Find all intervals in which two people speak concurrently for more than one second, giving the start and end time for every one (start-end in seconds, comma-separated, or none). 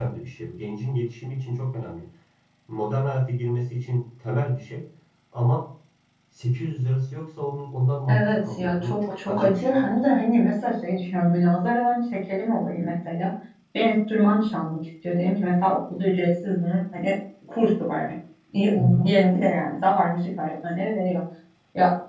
8.1-10.0